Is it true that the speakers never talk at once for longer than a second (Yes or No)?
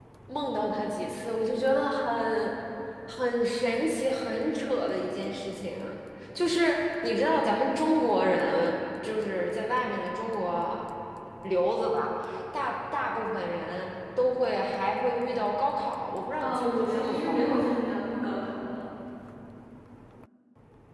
No